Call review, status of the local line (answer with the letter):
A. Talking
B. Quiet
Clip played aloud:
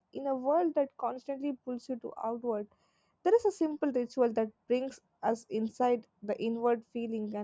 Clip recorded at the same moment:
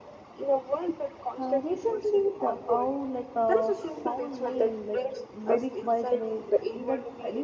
A